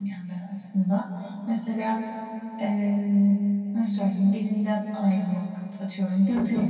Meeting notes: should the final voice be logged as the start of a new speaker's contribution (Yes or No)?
No